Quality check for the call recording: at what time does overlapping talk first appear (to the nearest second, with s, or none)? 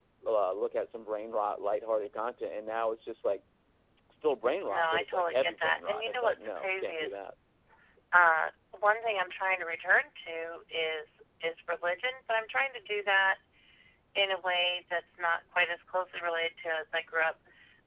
5 s